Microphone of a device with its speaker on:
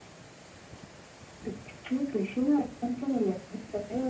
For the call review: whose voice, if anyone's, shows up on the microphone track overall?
echo only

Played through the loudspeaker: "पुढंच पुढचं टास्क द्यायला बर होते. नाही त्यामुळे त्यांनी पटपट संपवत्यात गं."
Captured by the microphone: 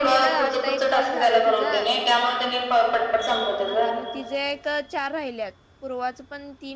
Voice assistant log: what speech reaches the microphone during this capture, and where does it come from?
both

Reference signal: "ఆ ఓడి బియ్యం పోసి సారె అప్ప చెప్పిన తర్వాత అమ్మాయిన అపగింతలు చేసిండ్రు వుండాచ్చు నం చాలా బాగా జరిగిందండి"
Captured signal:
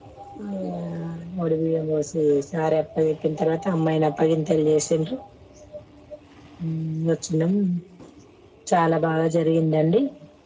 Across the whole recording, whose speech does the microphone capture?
echo only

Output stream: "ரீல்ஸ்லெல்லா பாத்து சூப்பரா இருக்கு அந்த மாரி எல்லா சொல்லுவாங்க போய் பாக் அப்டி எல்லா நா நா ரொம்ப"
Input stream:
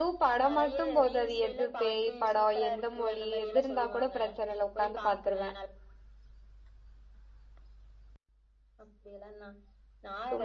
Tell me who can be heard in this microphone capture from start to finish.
both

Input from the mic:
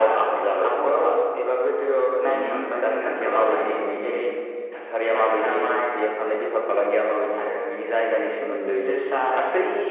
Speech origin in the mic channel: echo only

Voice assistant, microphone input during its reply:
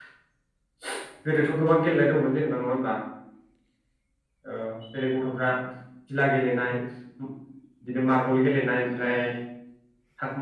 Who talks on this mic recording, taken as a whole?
user only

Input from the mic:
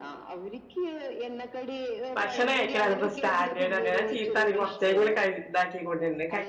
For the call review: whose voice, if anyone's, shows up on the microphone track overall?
both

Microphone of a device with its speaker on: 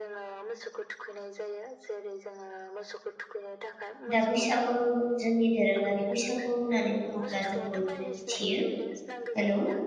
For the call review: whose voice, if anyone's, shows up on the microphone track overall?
both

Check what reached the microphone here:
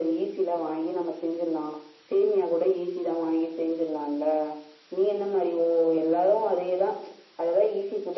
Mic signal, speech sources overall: echo only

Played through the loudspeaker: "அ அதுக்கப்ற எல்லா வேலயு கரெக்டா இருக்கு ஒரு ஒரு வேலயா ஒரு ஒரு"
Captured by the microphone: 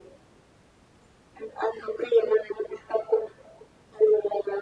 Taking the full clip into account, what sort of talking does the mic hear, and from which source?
echo only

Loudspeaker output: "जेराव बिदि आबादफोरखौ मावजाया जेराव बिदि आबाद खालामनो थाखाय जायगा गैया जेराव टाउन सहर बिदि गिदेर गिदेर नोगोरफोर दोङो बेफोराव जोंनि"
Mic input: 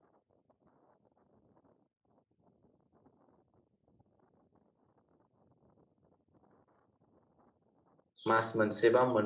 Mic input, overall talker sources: user only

